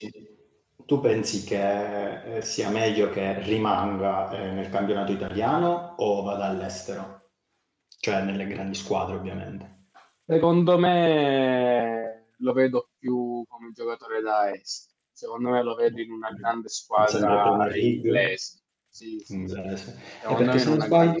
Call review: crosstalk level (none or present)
present